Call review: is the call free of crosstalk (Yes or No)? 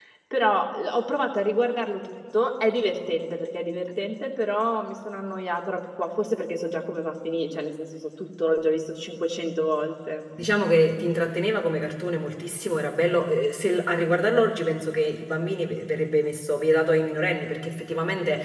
Yes